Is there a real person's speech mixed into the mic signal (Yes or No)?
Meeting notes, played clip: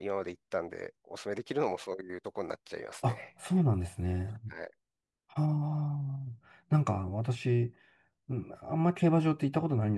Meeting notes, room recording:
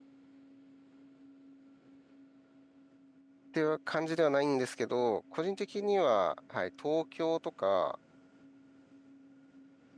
Yes